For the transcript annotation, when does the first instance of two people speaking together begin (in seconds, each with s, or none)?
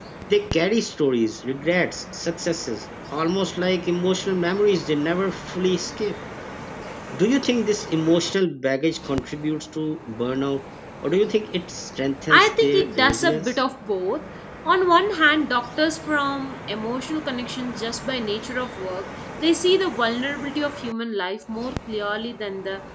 12.3 s